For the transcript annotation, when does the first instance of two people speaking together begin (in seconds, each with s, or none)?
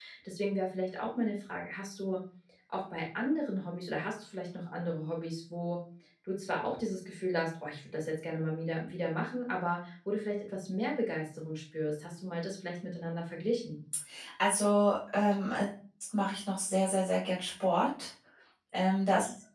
none